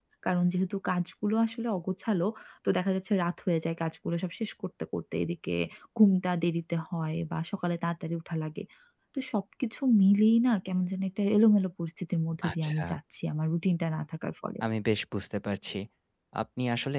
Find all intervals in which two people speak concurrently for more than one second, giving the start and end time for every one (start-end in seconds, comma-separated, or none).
none